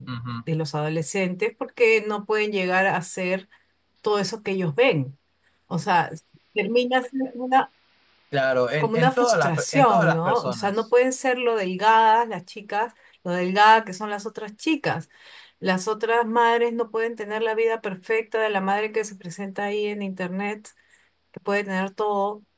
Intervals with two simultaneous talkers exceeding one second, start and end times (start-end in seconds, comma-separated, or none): 8.8-10.8